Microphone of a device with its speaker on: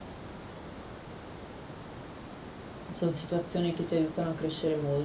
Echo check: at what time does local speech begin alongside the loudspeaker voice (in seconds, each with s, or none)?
2.9 s